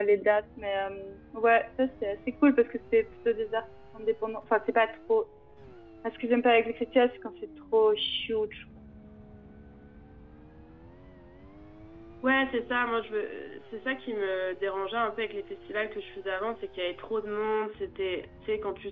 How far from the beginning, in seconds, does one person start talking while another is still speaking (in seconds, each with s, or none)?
none